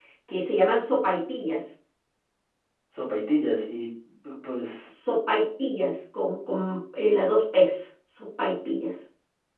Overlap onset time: none

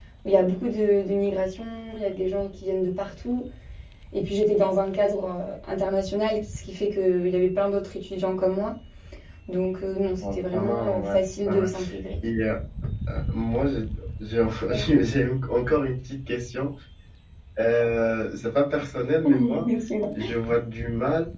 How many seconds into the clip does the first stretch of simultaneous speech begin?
10.2 s

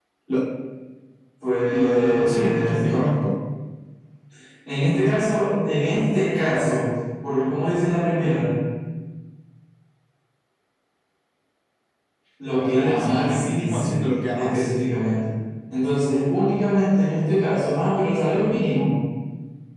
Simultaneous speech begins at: 1.7 s

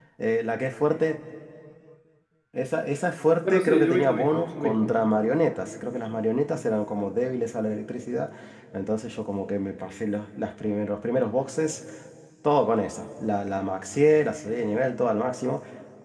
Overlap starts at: 3.4 s

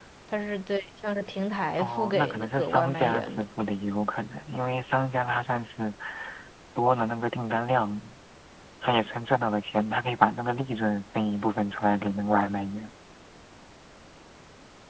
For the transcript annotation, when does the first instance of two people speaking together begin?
1.8 s

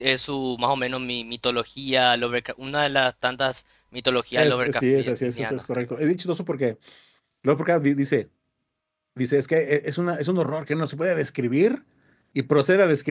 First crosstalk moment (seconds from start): 4.4 s

